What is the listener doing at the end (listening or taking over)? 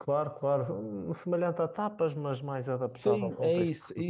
taking over